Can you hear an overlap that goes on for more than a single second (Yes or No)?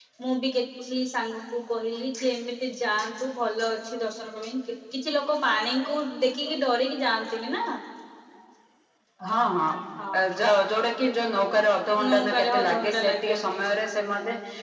Yes